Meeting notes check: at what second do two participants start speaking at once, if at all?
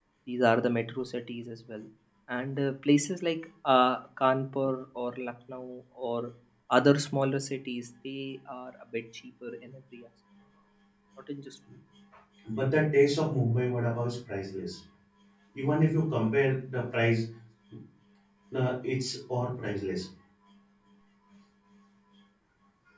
none

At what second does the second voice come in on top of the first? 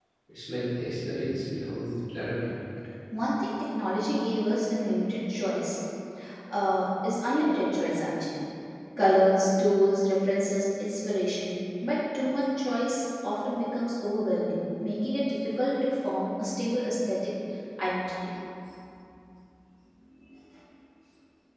none

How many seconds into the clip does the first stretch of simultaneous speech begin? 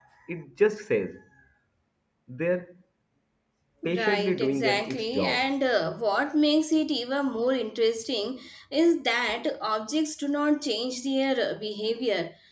3.8 s

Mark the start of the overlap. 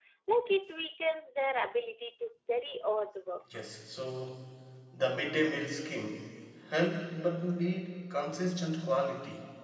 none

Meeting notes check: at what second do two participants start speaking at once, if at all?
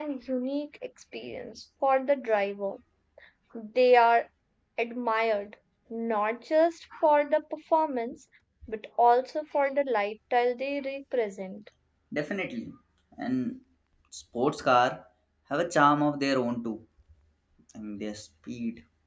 none

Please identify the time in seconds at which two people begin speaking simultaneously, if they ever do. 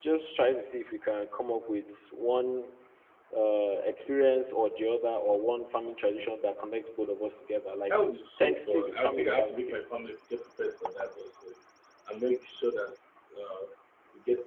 8.4 s

